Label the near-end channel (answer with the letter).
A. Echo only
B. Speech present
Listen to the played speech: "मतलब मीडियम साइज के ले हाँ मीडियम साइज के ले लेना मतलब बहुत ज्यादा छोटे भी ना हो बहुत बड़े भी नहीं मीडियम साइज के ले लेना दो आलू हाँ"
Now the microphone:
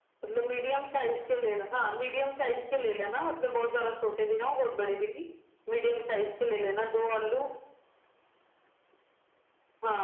A